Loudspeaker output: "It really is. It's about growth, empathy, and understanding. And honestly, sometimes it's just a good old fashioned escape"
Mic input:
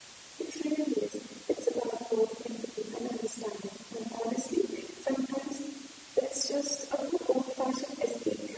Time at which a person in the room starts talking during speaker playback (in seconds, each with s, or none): none